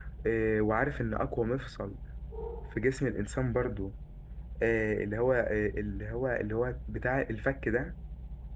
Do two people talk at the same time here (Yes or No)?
No